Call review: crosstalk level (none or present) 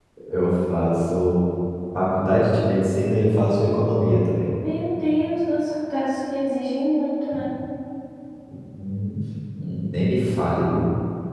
none